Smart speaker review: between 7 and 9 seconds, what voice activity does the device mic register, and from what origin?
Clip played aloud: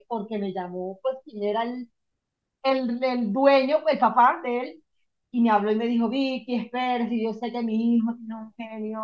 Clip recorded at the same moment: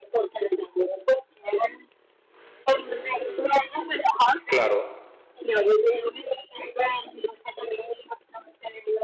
echo only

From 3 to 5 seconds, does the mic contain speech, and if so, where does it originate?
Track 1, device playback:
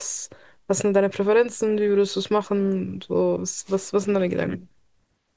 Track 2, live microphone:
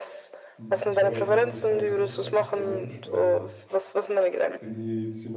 both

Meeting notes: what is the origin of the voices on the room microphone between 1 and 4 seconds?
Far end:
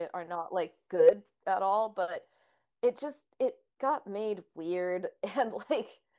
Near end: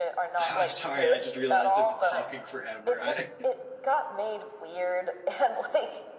both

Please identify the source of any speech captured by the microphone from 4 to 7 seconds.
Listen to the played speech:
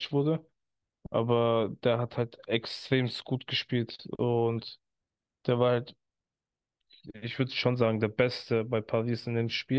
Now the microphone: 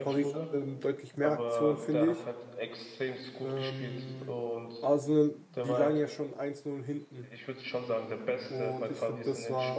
both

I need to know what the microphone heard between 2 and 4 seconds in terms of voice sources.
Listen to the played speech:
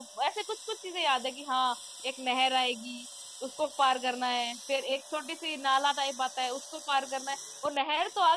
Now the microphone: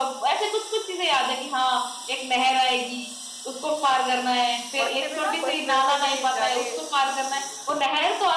echo only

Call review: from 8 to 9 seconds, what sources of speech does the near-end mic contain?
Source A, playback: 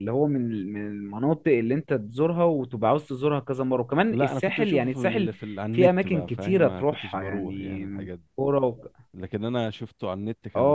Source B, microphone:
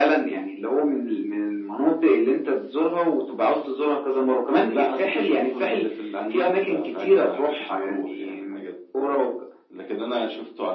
echo only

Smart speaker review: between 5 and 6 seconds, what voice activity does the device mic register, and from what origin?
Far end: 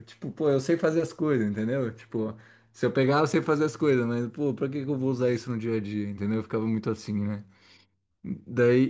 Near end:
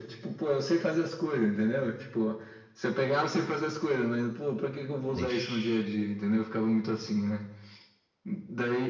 both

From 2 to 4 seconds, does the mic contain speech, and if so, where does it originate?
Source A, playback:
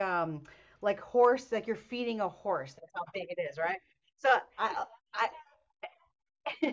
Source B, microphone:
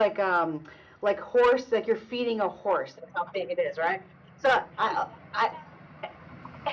echo only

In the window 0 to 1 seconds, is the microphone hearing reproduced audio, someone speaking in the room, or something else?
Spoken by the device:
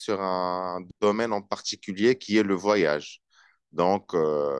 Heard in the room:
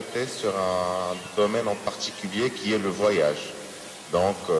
echo only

